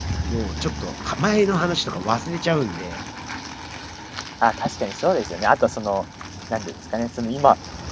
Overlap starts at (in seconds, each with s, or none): none